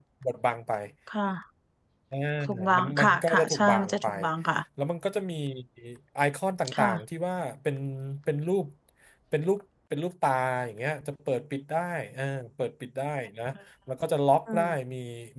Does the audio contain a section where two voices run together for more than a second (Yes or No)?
Yes